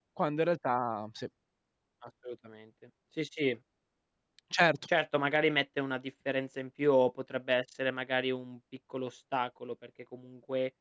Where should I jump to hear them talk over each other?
none

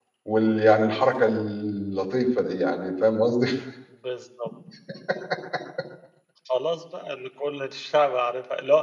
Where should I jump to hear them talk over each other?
none

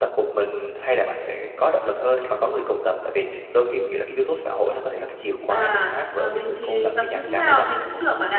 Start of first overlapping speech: 5.5 s

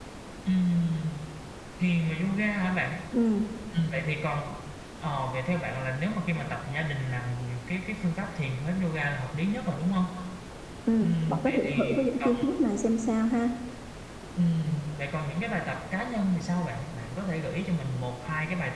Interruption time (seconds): 11.0 s

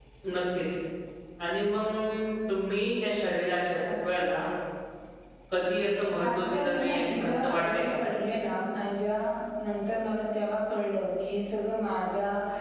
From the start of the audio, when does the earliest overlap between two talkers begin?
6.2 s

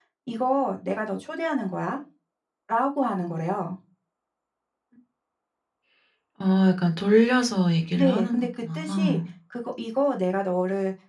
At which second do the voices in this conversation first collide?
8.0 s

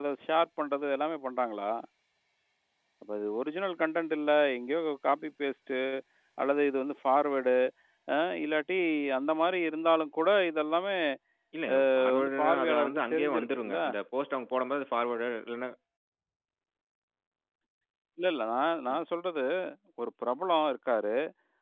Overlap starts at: 12.0 s

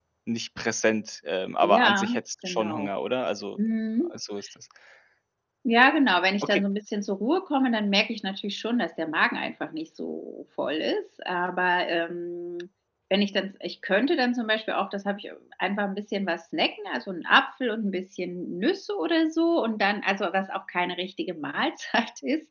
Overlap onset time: 1.6 s

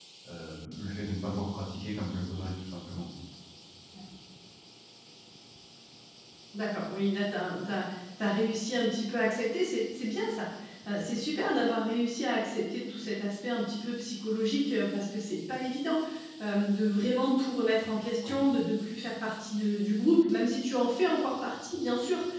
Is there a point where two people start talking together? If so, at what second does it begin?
none

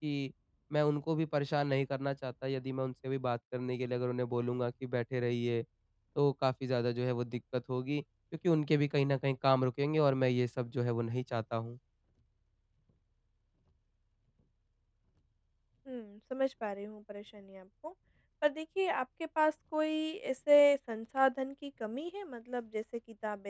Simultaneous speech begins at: none

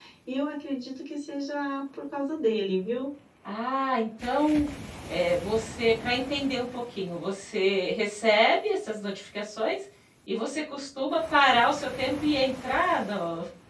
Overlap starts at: none

